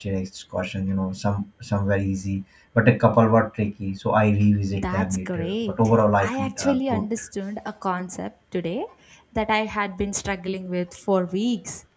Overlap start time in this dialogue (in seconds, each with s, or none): 4.7 s